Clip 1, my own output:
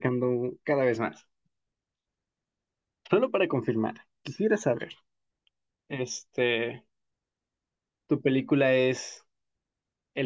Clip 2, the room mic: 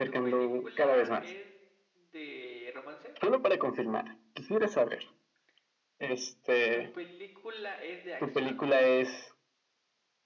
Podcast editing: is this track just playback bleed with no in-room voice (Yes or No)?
No